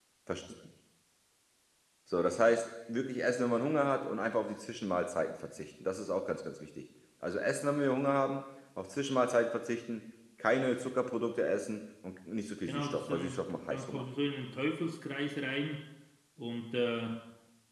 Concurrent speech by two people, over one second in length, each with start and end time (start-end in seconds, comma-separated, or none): 12.7-14.0